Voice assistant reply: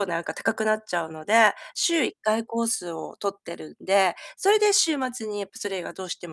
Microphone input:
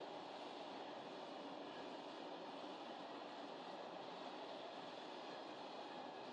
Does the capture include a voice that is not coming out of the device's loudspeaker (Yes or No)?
No